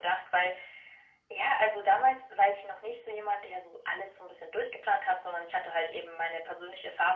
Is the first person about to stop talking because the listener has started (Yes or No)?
No